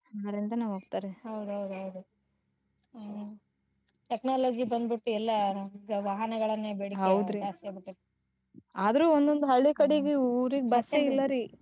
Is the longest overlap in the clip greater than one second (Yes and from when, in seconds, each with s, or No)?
No